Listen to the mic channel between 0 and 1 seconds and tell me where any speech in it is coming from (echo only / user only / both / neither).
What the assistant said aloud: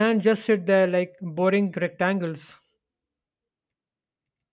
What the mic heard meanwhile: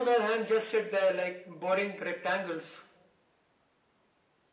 echo only